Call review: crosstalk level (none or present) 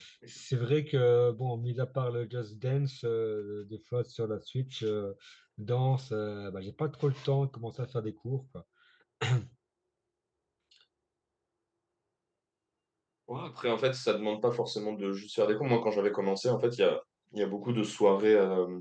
none